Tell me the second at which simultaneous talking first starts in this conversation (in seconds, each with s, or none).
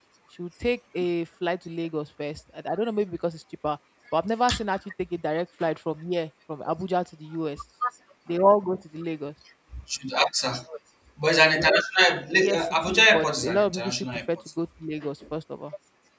12.4 s